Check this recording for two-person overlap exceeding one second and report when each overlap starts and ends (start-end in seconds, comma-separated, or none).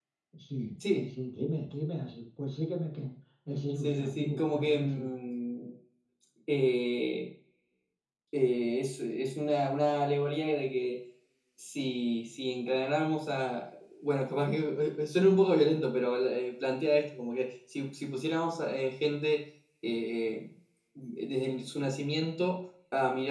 3.8-5.1